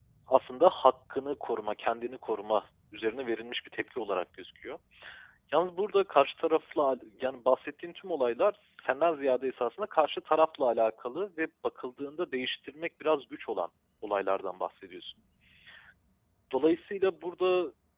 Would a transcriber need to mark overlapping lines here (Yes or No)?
No